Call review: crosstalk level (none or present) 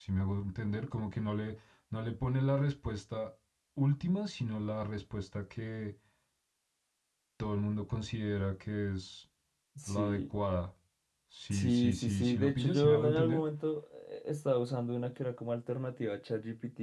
present